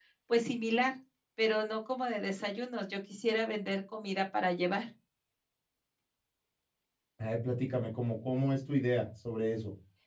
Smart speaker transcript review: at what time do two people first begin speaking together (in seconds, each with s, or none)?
none